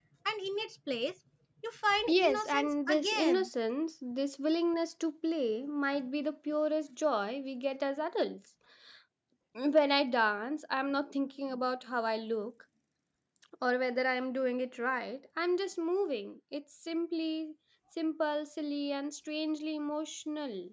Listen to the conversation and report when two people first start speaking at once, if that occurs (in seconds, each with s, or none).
2.1 s